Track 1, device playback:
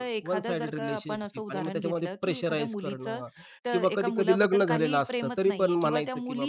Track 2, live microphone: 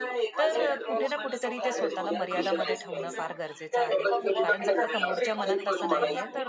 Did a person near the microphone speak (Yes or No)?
Yes